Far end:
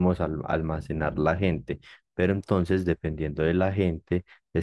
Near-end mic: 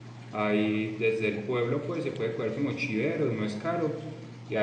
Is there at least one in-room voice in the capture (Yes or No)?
Yes